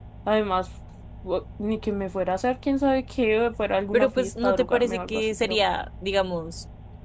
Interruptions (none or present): present